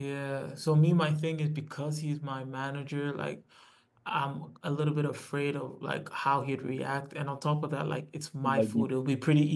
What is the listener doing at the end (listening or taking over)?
listening